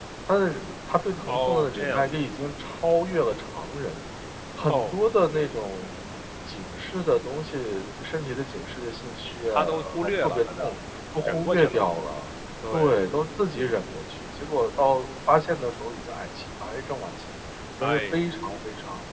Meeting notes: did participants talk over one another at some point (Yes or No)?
Yes